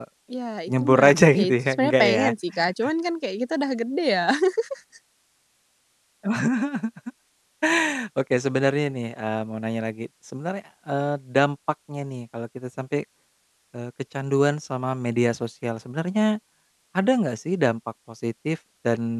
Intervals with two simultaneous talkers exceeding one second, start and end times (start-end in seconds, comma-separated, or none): 0.7-2.2